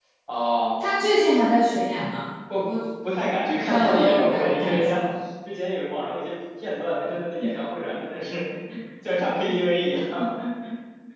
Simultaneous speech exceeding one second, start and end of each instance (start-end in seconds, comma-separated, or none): 3.7-5.0